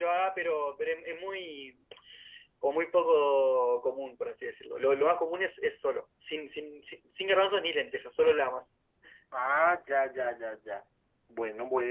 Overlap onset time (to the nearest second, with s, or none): none